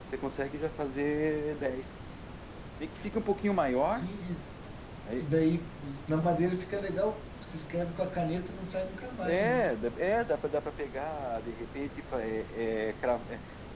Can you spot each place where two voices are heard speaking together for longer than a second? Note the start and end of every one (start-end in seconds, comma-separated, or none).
none